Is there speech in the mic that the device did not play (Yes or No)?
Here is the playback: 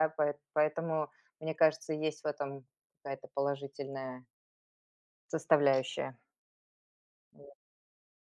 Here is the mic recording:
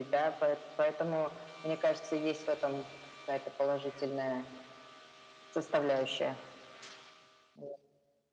No